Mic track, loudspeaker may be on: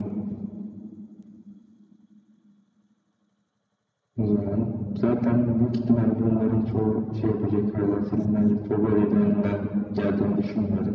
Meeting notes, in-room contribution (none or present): none